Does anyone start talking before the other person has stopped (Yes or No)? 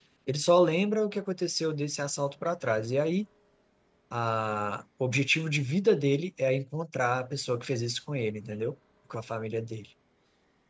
No